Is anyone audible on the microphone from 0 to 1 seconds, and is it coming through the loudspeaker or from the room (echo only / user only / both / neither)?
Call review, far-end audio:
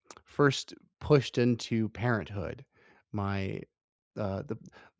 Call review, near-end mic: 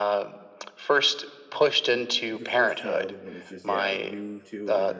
echo only